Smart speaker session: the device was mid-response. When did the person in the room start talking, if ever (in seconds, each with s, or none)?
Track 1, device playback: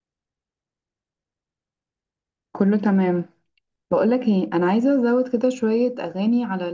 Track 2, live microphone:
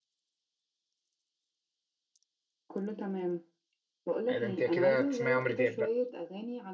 4.3 s